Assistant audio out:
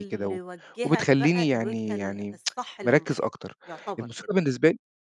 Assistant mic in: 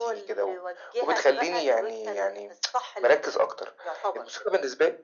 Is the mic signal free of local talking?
Yes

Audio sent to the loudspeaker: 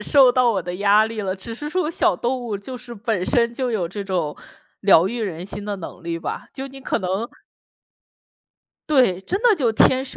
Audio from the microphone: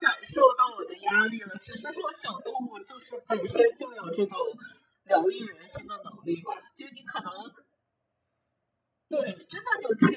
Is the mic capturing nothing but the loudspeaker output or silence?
Yes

